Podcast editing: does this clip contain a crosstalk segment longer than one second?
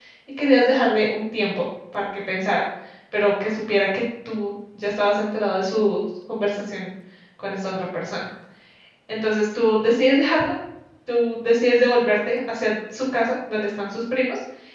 No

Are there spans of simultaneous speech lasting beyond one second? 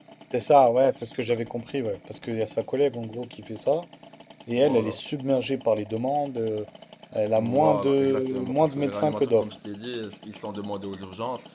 Yes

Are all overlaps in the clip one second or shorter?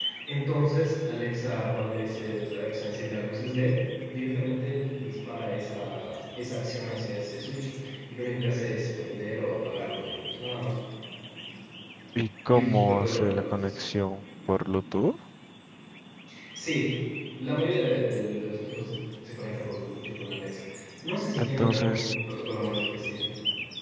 No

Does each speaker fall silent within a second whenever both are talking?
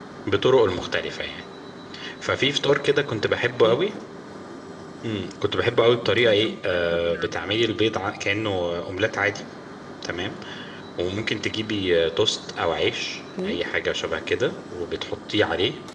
No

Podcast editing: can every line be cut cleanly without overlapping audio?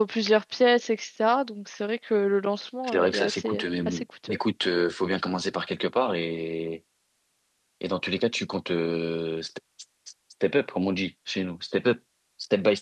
No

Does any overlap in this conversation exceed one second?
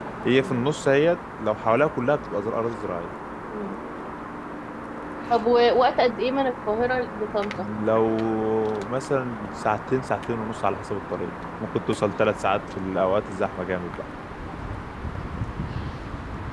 No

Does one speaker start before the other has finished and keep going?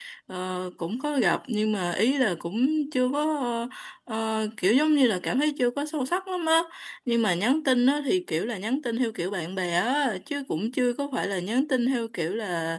No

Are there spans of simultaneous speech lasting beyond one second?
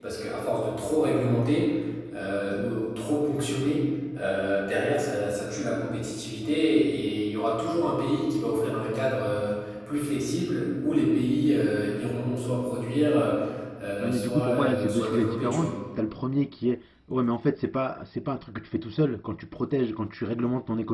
Yes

